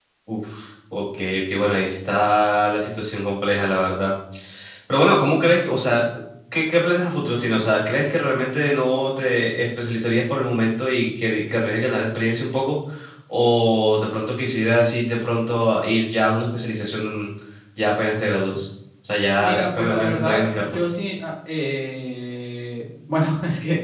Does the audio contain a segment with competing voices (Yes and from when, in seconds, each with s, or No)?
Yes, from 19.4 s